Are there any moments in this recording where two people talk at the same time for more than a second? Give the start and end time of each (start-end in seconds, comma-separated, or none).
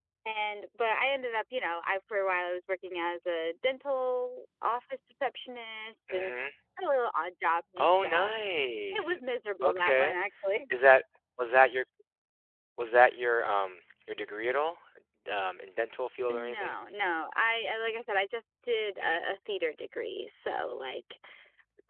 none